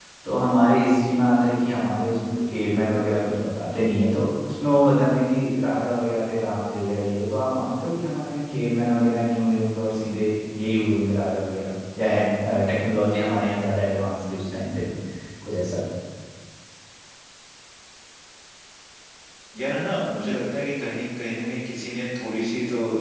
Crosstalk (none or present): none